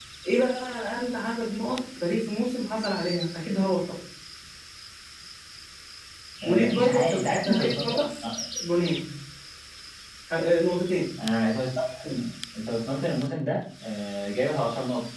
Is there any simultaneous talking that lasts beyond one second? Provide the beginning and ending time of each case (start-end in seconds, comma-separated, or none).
6.4-8.0